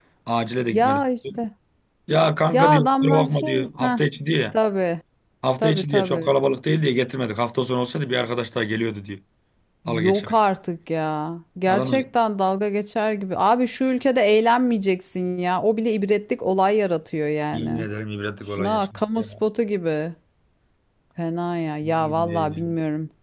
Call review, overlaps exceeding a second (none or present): present